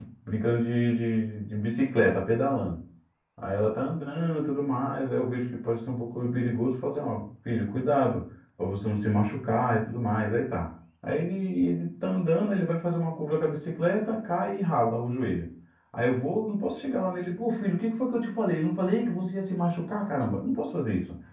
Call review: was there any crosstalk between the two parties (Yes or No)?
No